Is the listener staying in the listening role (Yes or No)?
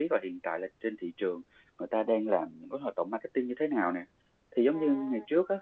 Yes